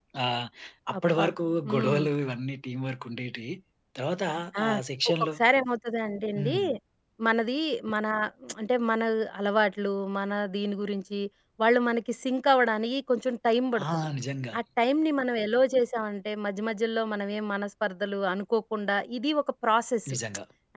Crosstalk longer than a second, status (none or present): none